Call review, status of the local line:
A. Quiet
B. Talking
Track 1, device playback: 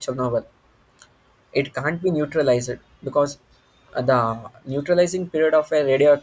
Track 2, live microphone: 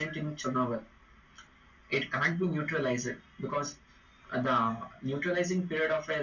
A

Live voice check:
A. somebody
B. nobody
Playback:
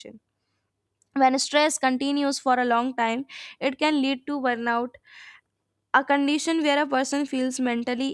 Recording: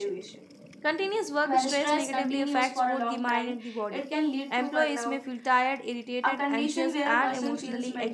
A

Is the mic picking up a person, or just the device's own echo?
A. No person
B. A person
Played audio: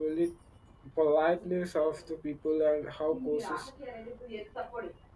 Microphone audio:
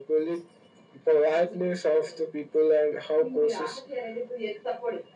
A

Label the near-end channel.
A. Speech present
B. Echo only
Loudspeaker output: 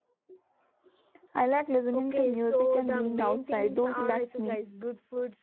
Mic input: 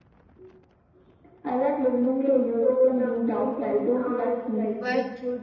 A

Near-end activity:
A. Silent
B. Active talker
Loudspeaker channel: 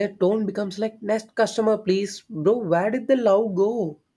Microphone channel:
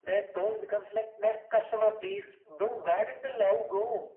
A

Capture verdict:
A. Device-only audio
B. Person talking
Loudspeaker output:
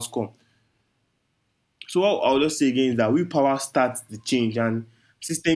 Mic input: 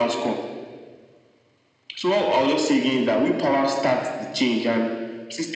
A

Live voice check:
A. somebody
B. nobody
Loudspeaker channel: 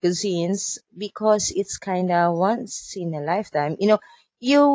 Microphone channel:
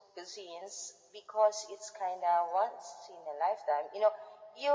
B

